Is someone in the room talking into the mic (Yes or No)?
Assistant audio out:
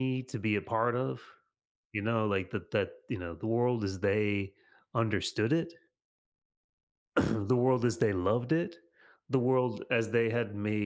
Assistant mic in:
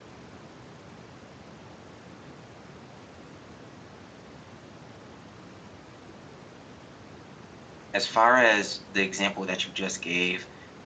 Yes